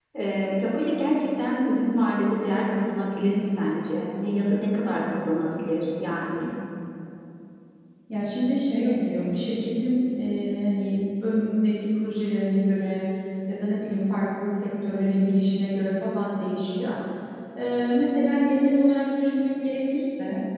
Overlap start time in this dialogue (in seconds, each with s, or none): none